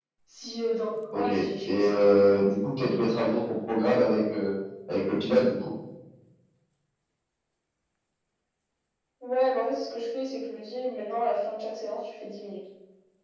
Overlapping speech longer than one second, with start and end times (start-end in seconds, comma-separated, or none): 1.1-2.4